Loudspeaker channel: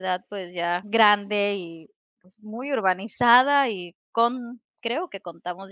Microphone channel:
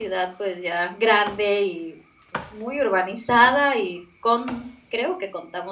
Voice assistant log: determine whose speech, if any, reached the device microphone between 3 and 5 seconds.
echo only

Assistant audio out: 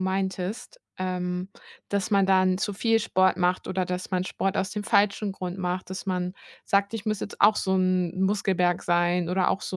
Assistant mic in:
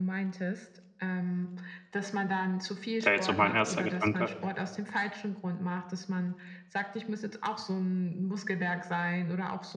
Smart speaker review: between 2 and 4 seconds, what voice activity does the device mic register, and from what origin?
both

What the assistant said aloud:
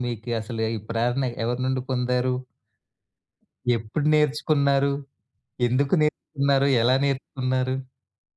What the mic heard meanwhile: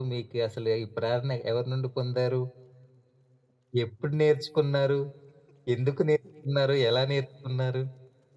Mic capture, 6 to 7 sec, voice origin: echo only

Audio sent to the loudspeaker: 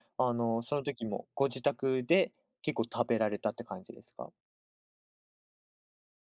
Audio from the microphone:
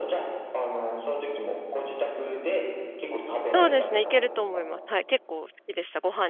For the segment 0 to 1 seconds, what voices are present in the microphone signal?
echo only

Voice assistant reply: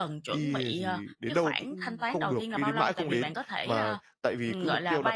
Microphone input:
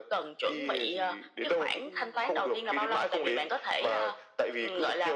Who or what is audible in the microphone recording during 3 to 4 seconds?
echo only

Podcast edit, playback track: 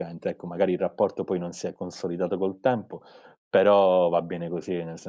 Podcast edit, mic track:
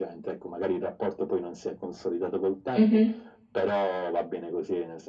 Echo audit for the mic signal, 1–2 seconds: echo only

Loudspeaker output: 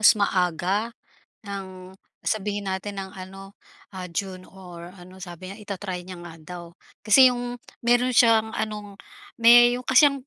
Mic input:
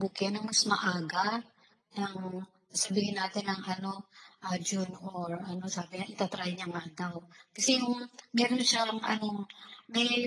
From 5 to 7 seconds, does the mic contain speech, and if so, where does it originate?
echo only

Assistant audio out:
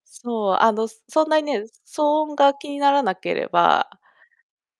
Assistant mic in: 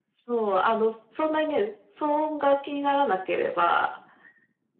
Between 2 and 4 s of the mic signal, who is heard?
echo only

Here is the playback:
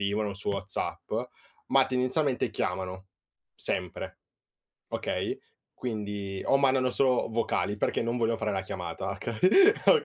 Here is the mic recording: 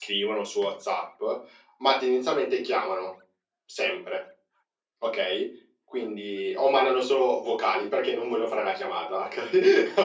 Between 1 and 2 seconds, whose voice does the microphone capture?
echo only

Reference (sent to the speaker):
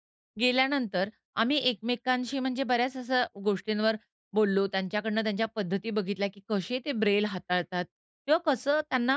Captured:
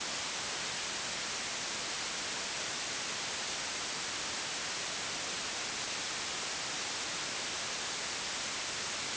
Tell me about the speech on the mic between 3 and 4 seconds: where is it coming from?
neither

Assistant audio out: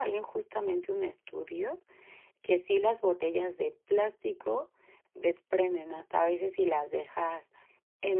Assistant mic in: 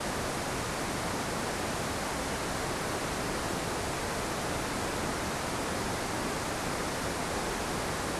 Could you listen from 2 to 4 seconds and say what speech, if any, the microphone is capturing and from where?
neither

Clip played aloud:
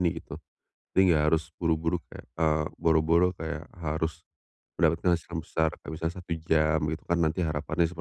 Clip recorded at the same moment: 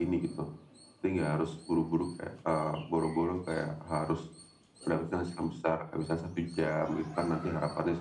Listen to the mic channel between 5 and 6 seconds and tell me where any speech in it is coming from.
echo only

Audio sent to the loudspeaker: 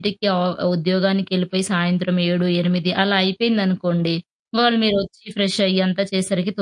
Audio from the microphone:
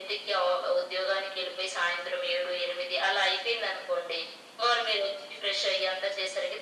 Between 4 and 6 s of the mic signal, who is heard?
echo only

